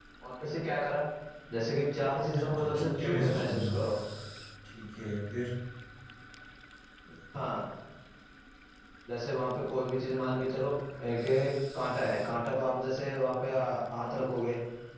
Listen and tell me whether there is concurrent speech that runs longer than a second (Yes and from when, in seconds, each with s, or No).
Yes, from 2.3 s